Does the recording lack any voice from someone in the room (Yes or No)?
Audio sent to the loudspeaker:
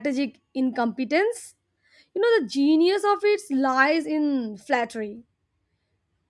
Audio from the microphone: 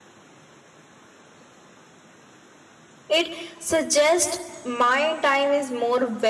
No